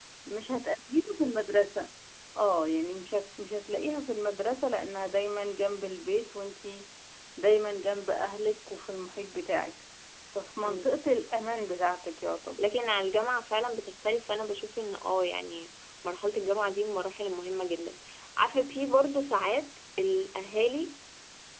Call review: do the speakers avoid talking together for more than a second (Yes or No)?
Yes